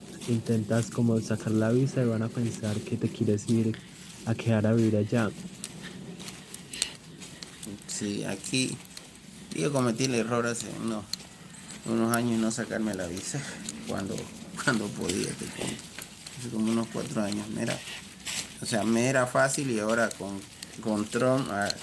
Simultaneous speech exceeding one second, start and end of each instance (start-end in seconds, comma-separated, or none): none